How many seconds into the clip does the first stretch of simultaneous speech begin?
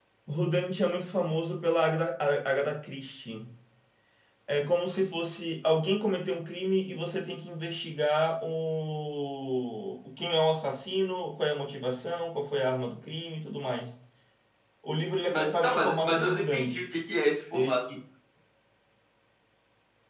15.3 s

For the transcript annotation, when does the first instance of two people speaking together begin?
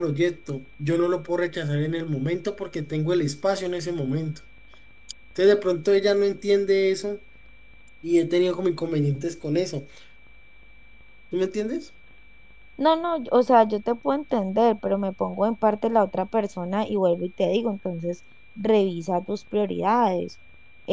none

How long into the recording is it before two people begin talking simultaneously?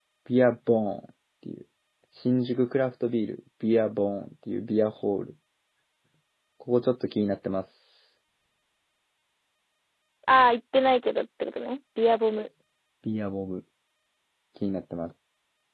none

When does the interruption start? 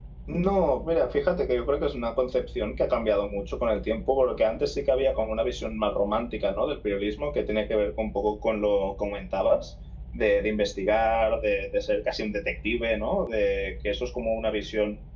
none

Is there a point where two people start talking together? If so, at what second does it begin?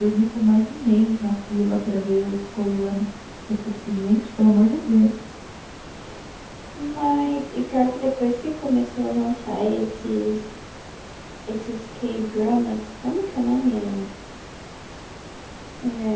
none

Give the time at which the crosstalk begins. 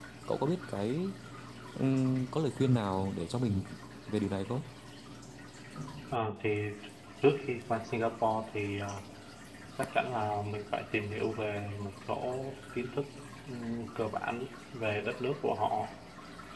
none

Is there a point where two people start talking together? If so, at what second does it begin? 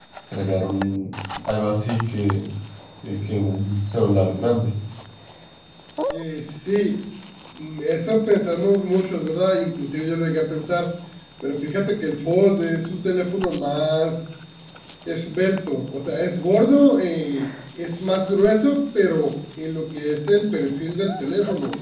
none

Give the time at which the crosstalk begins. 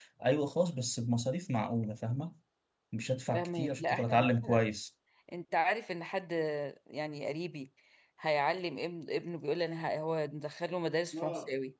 3.3 s

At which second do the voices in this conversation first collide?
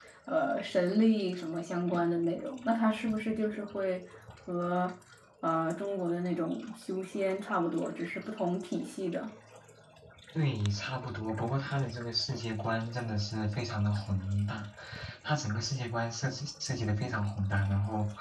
none

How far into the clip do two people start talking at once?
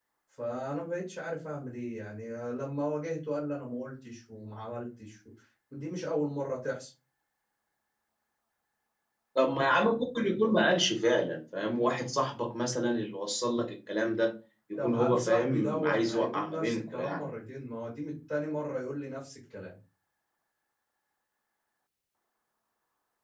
14.8 s

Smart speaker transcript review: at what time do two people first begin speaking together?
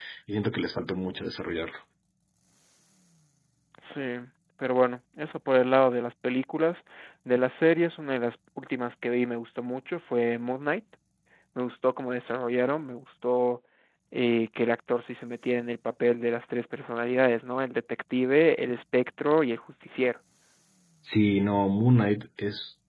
none

